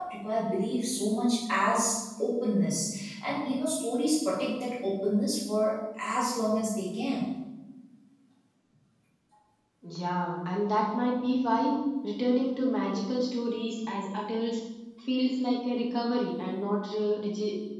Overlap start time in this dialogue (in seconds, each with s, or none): none